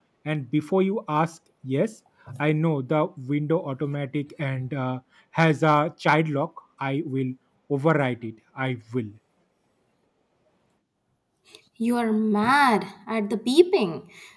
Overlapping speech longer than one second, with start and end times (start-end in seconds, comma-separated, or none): none